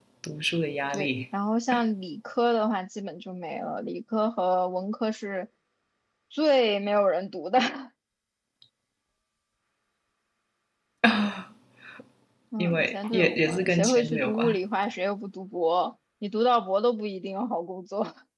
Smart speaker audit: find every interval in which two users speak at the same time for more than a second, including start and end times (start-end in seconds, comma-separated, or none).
12.6-14.6